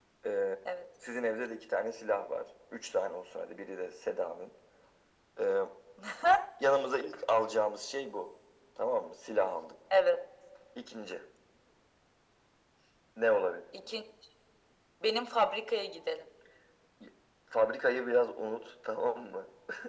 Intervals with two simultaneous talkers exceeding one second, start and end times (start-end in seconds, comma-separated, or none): none